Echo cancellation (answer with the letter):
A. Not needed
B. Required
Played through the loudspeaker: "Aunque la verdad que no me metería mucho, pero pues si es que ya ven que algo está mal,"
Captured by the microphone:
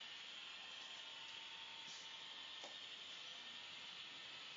A